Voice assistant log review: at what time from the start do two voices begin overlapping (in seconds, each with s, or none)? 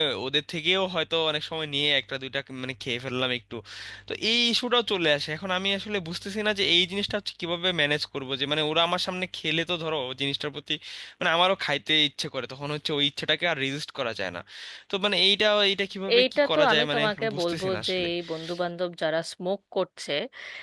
16.1 s